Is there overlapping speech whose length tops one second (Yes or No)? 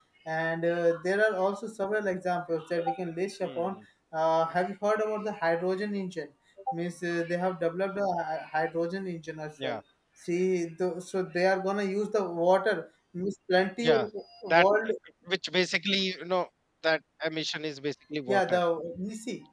No